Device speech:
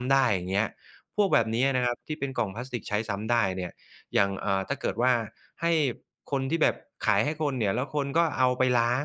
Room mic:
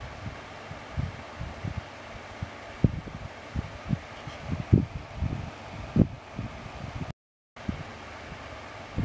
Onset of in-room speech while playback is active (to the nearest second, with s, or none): none